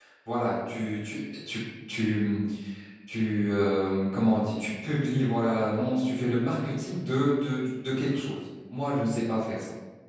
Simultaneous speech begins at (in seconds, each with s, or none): none